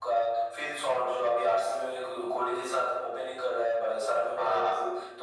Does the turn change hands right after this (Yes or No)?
No